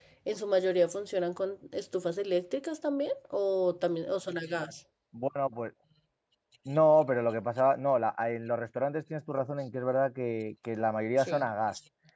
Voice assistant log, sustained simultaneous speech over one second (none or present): none